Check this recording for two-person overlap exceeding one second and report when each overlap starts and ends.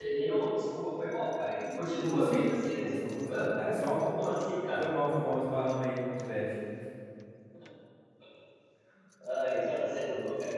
2.1-3.5

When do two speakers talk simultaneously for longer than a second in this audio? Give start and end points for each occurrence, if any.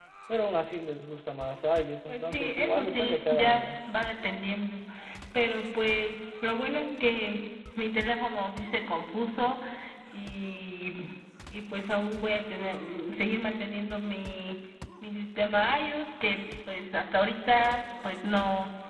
2.1-3.6

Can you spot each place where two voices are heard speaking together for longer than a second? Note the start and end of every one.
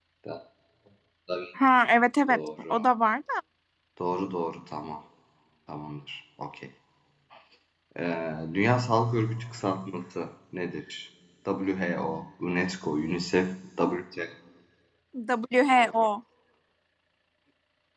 none

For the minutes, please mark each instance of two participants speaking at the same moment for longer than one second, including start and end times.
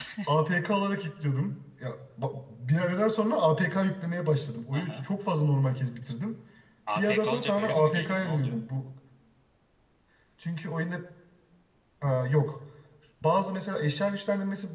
7.0-8.6

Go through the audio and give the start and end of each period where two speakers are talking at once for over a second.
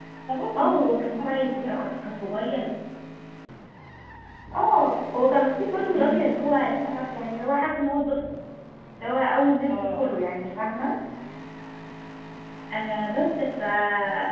0.6-1.8

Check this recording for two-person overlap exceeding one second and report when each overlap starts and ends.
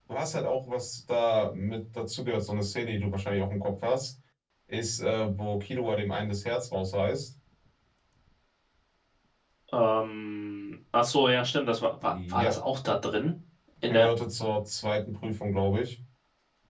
none

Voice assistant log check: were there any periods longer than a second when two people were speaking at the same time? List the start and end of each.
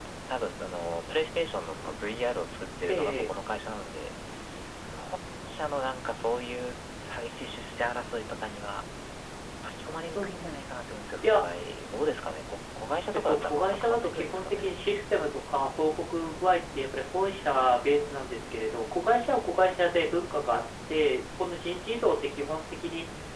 13.1-14.7

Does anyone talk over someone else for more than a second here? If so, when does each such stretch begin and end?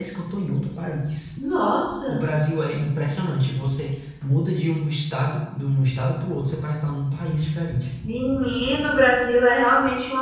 none

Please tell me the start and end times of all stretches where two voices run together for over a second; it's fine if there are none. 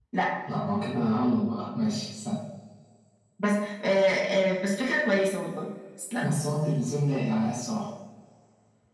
none

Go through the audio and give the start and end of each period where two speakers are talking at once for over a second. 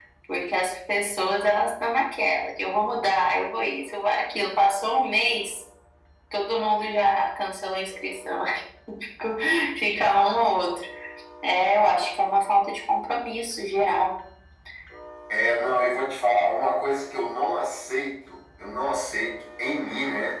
none

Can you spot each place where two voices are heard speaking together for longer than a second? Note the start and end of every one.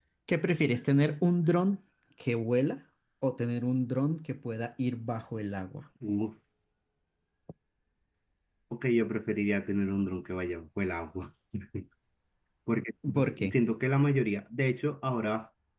none

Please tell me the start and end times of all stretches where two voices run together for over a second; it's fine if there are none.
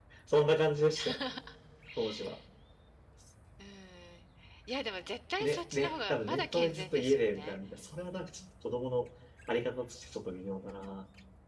5.4-7.6

